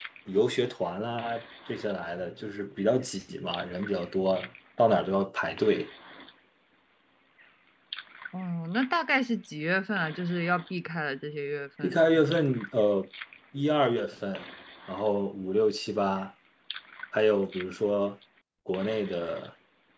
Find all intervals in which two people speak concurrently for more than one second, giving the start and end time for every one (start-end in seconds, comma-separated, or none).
none